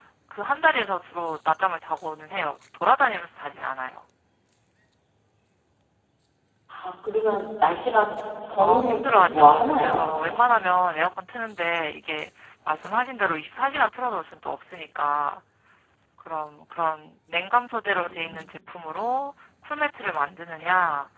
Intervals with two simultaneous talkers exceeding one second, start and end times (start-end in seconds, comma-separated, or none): 8.6-10.0